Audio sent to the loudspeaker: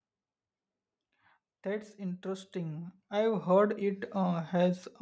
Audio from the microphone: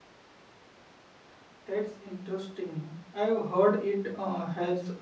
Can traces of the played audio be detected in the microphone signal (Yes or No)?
Yes